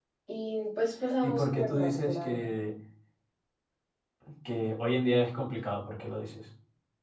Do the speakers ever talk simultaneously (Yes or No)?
Yes